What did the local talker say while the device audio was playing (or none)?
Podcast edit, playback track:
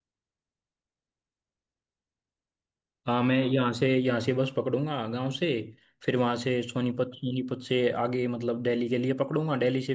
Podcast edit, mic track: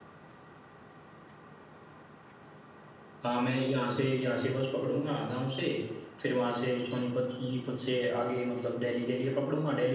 none